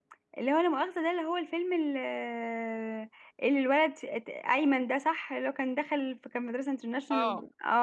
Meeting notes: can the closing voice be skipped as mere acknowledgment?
No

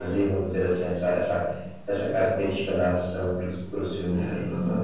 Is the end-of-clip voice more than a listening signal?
Yes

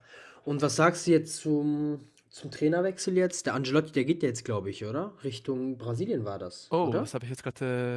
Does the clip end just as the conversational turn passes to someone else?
Yes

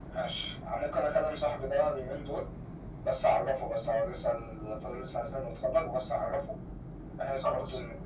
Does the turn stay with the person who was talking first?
Yes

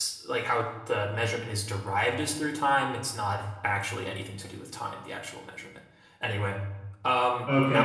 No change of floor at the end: No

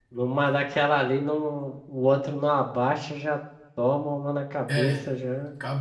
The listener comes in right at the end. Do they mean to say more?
Yes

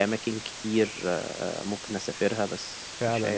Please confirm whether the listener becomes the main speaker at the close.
Yes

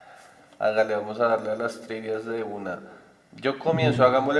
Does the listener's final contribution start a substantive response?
No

